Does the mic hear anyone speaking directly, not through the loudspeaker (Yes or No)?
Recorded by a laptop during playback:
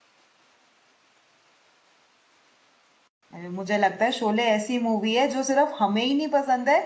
Yes